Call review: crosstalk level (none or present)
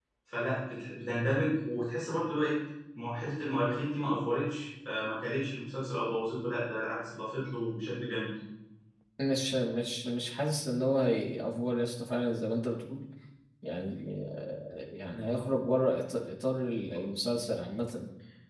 none